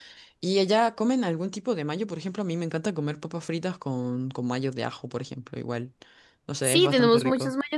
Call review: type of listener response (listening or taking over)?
taking over